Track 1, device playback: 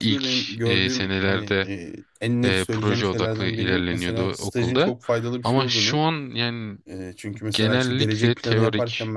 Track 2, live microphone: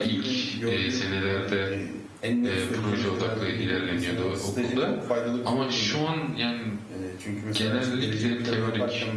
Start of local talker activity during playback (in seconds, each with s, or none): none